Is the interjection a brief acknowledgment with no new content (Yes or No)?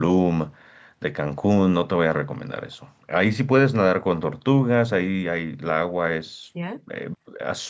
Yes